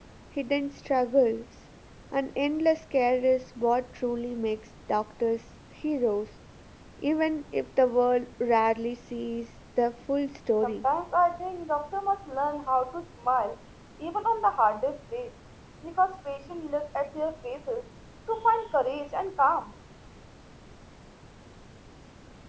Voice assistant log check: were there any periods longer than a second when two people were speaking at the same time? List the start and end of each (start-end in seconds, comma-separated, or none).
none